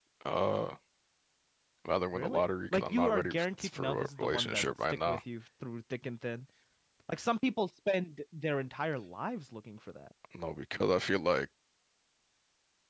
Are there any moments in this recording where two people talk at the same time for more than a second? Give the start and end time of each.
2.1-5.2

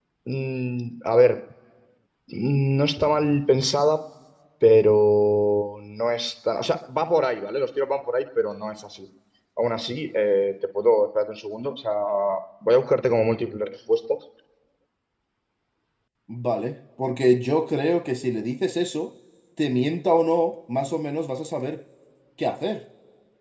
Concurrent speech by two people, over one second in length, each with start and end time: none

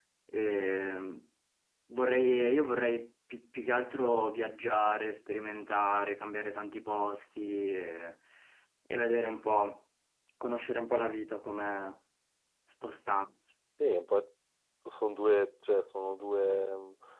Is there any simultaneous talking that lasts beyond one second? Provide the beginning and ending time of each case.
none

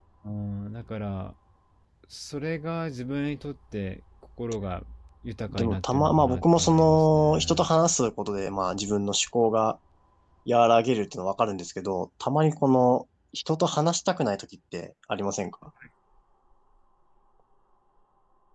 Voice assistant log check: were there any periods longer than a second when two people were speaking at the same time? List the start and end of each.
5.5-7.7

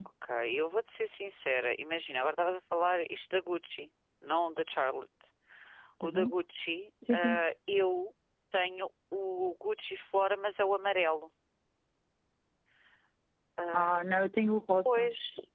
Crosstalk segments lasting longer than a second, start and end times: none

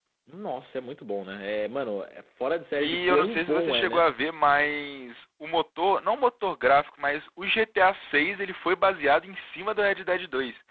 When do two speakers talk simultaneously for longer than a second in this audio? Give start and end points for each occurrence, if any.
2.8-4.0

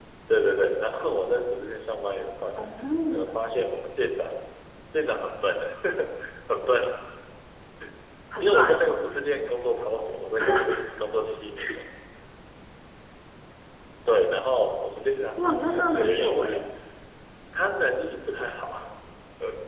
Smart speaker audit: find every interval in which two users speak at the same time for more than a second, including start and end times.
15.4-16.6

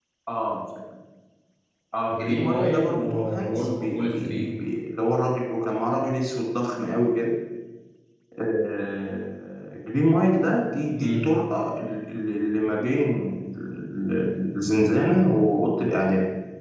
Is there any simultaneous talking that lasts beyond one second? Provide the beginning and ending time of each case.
2.1-4.4

